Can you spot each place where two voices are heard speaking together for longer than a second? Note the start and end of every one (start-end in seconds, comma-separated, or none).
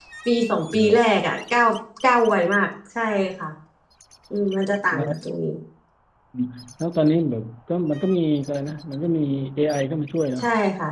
none